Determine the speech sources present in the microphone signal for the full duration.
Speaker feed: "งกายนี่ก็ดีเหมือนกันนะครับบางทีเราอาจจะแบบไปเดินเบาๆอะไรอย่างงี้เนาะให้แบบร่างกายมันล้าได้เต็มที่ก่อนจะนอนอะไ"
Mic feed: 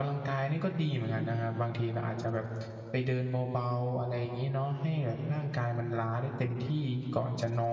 echo only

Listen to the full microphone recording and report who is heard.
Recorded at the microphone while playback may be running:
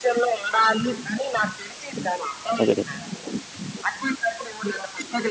both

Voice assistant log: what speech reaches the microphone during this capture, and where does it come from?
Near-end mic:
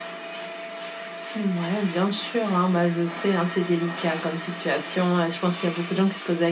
echo only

